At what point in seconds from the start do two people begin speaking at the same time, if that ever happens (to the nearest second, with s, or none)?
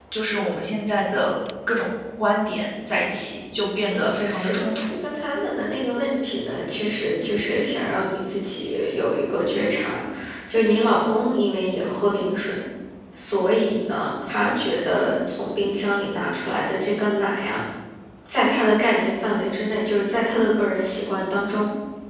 4 s